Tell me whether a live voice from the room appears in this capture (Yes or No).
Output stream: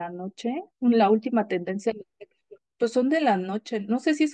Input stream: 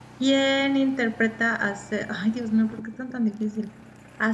Yes